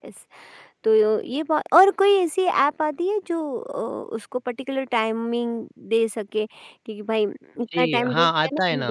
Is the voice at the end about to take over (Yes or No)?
Yes